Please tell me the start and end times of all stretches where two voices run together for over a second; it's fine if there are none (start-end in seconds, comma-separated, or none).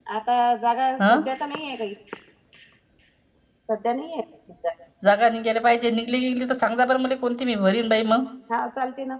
none